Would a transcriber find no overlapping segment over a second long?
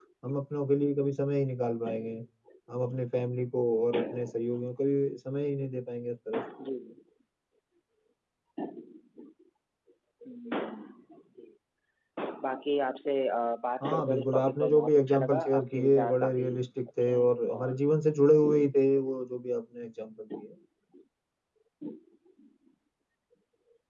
No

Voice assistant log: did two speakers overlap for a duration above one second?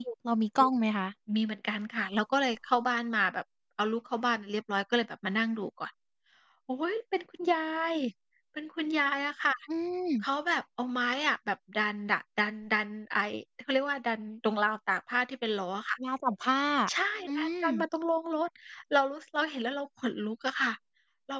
No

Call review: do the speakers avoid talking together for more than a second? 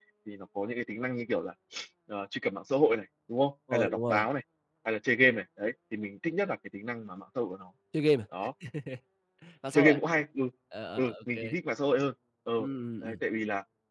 Yes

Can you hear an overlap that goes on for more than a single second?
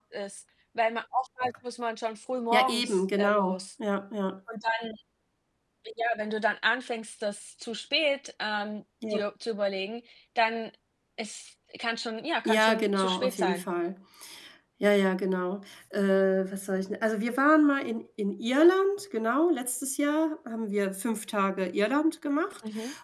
Yes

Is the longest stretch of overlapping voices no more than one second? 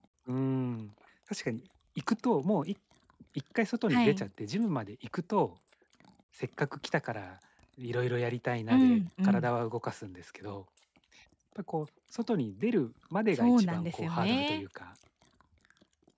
No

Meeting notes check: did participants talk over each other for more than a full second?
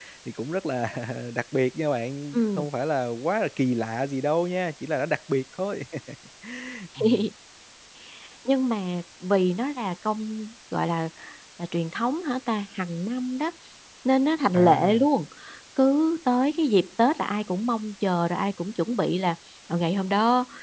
No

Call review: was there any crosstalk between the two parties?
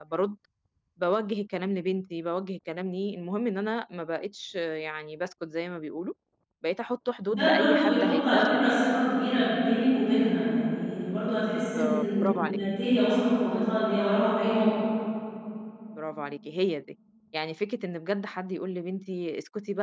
Yes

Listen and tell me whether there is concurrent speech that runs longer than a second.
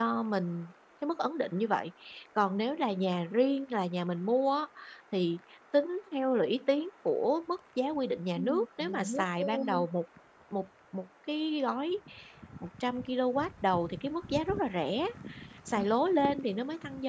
Yes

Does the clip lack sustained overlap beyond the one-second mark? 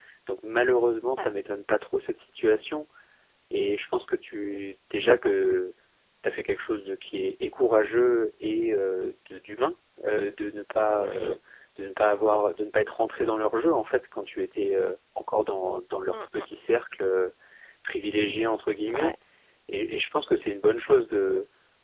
Yes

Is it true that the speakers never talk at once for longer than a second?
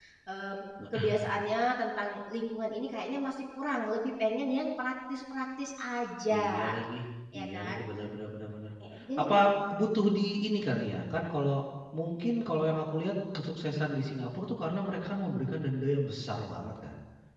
Yes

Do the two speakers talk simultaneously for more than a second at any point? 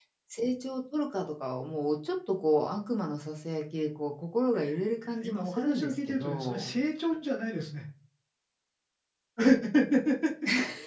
Yes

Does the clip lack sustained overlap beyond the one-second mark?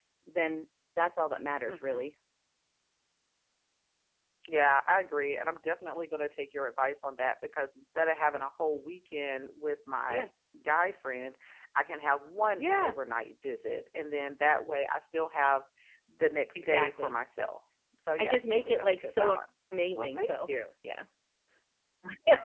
No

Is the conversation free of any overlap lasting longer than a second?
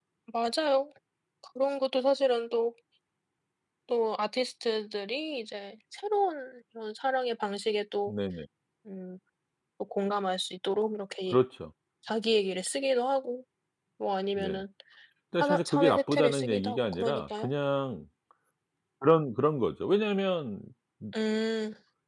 No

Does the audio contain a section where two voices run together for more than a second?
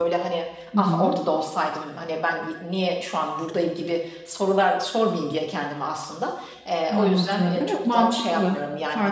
Yes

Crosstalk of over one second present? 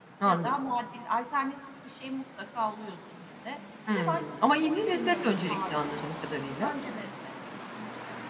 Yes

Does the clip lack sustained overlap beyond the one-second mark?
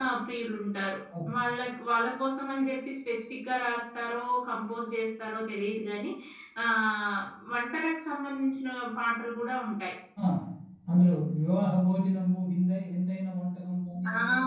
Yes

